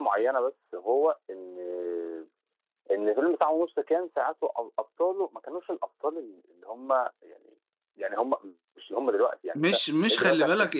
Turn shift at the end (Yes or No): Yes